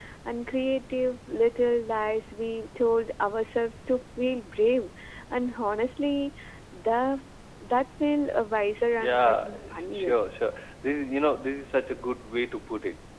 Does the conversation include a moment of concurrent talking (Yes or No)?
Yes